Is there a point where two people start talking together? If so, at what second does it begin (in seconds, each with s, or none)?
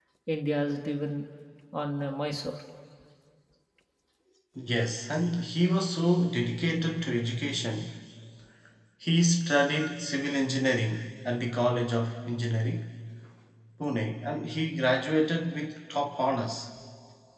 none